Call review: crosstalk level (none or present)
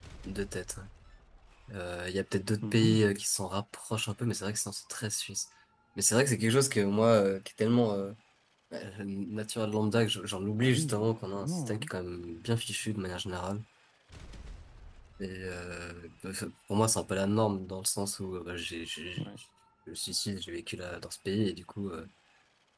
present